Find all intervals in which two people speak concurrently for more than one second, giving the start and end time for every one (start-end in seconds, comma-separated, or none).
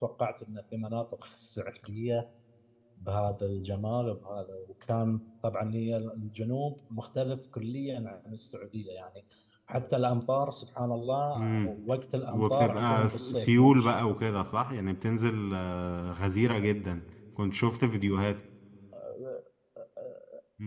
12.3-14.0